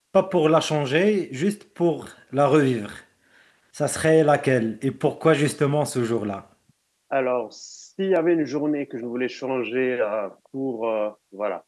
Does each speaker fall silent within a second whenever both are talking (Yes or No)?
Yes